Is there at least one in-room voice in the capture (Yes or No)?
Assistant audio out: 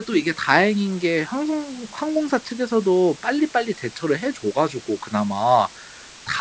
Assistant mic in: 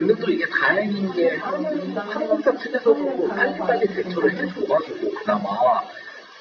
Yes